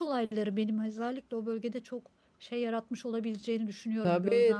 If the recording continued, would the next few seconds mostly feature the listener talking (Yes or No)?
Yes